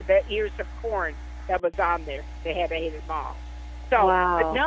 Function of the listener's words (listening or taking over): listening